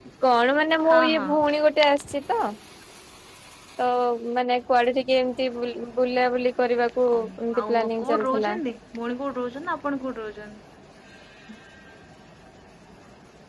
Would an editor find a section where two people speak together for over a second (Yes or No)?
Yes